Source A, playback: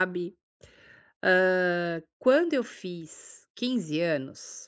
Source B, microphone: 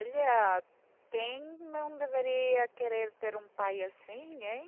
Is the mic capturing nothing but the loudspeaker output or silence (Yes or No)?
No